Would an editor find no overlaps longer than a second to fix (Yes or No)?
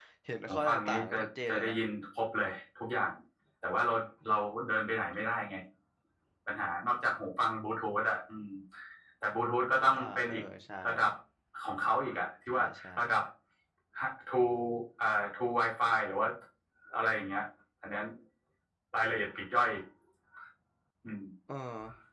No